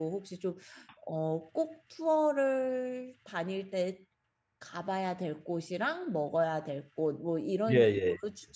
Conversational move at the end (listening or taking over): listening